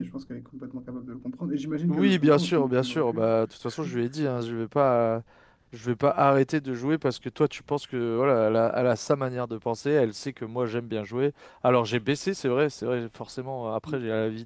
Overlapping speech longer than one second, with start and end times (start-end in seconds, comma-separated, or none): 1.9-3.2